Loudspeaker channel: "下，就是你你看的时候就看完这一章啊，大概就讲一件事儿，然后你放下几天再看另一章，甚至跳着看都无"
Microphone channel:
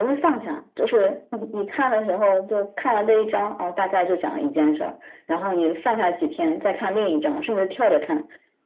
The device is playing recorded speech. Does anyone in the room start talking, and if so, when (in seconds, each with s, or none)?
none